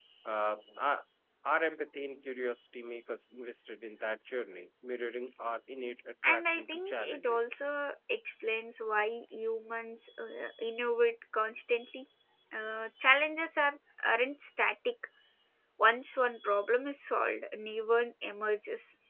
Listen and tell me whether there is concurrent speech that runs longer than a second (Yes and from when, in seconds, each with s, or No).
Yes, from 6.2 s